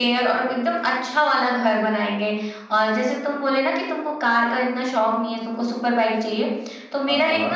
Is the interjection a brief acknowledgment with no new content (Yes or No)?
Yes